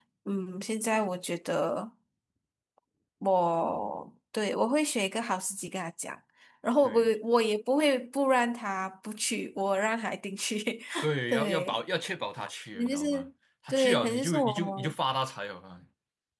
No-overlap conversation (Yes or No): No